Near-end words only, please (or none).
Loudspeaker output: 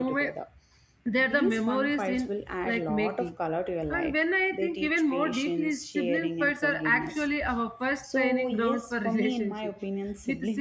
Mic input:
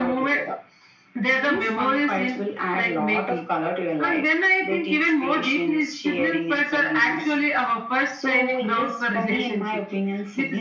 none